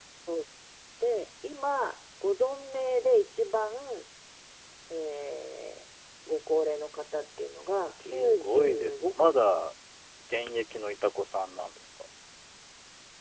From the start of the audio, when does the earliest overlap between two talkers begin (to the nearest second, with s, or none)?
8 s